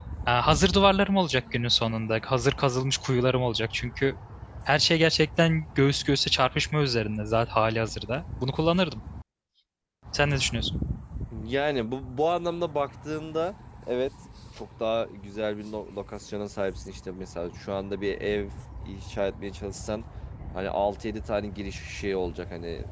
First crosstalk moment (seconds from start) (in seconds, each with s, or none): none